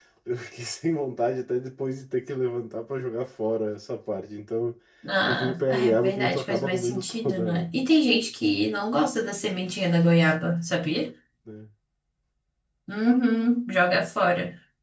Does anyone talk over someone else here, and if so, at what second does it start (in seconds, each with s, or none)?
5.3 s